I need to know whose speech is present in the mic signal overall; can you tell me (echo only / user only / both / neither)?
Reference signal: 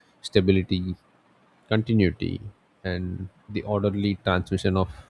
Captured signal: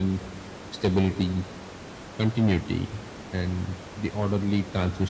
echo only